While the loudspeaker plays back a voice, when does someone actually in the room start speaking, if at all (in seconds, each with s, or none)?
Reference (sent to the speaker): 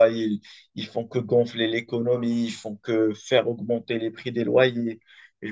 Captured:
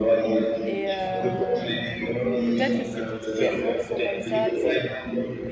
0.6 s